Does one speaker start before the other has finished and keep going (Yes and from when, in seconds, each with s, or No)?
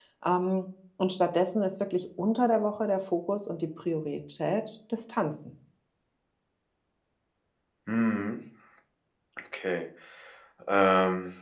No